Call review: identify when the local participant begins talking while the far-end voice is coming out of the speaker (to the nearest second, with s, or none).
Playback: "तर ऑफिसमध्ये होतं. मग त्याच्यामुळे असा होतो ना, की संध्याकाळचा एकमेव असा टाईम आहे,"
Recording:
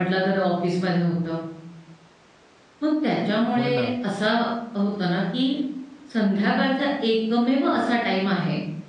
4 s